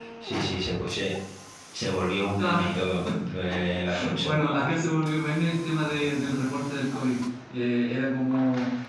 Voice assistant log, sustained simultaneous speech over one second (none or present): none